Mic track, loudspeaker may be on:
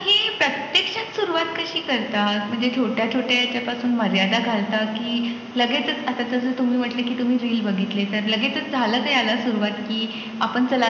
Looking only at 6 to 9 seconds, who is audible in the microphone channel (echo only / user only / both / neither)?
echo only